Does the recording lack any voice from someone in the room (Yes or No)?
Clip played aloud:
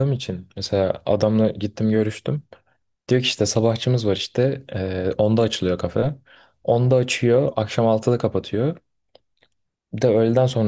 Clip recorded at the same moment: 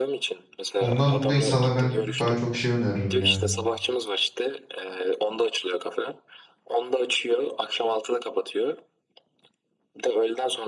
No